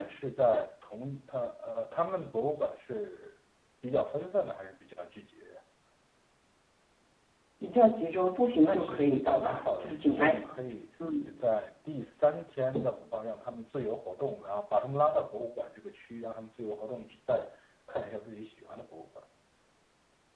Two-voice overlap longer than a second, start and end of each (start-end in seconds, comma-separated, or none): 8.6-10.4